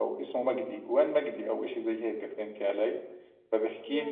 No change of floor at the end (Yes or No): Yes